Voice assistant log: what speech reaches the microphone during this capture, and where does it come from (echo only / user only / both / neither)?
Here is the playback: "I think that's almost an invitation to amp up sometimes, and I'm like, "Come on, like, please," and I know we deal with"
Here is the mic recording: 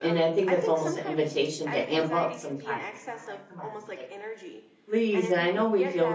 both